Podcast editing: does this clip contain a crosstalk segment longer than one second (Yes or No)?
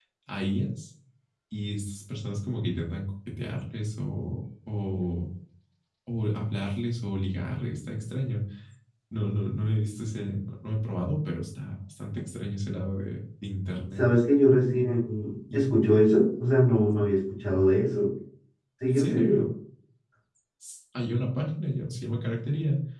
No